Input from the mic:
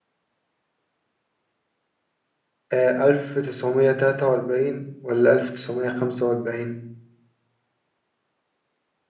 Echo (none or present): none